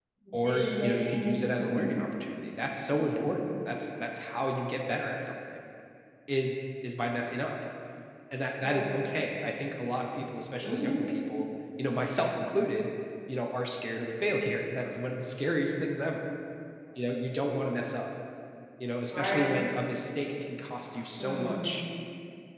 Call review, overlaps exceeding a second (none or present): present